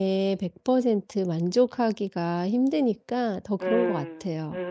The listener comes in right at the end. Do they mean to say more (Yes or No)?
Yes